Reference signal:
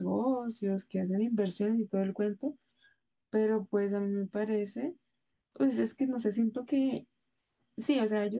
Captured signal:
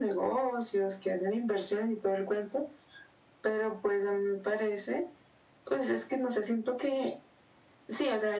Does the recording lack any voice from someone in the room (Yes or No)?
Yes